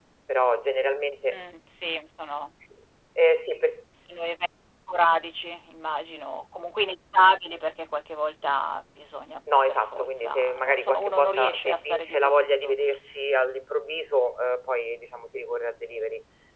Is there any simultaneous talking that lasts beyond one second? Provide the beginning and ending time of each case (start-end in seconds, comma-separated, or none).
9.7-12.8